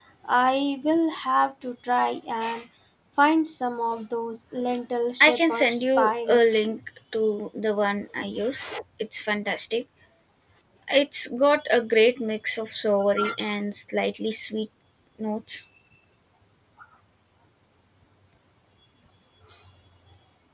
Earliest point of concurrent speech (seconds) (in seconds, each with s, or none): 5.2 s